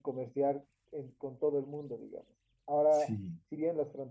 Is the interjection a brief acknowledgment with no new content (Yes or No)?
Yes